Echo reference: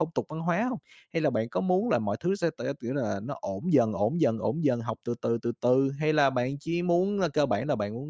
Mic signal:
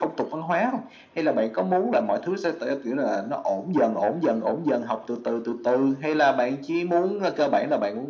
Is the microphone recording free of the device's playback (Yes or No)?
No